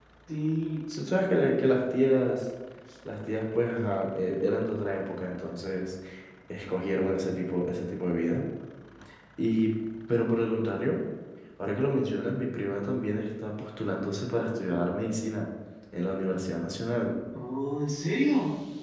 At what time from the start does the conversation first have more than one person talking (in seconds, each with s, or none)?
none